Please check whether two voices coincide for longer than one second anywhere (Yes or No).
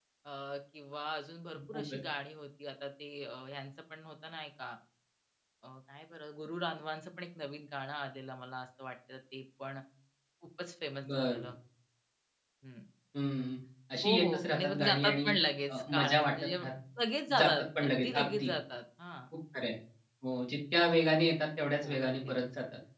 Yes